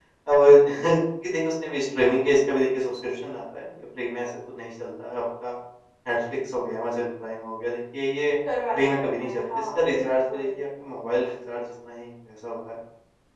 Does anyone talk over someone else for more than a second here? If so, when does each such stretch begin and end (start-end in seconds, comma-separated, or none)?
8.7-10.6